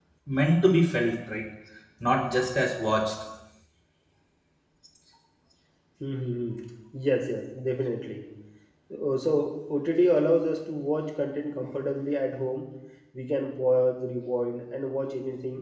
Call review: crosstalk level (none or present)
none